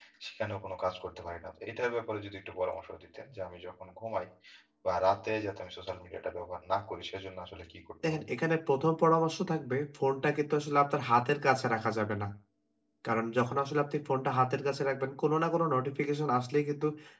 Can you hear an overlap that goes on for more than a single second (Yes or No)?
No